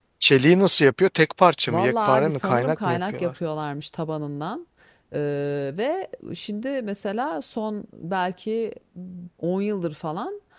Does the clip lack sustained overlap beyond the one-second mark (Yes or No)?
No